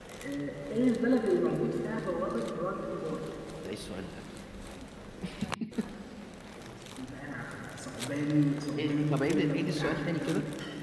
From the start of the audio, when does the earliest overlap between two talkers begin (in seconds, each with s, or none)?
8.8 s